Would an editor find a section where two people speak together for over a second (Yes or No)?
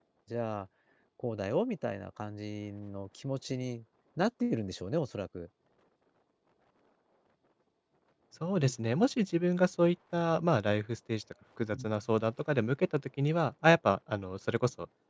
No